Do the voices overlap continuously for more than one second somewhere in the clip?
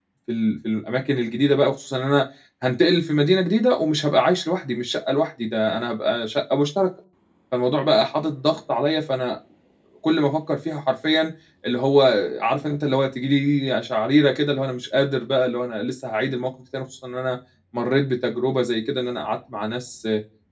No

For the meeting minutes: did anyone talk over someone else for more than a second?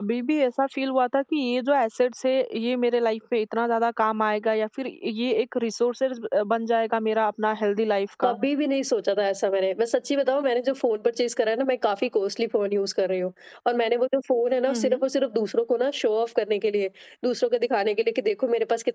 No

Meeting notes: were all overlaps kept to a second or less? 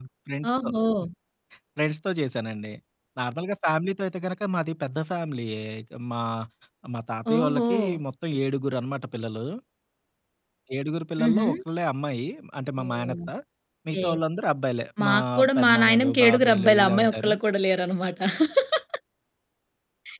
No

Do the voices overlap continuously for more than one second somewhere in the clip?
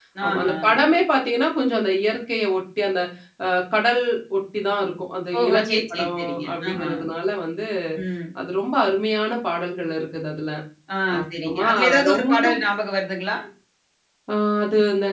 Yes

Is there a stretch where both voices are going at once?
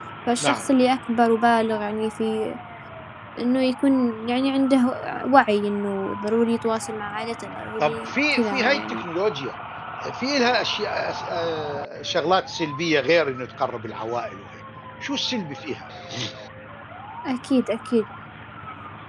Yes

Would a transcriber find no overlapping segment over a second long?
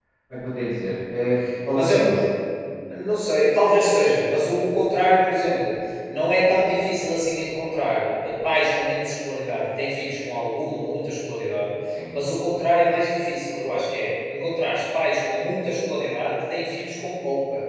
Yes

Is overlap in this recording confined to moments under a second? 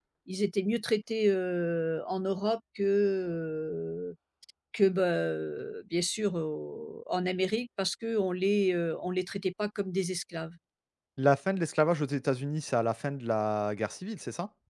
Yes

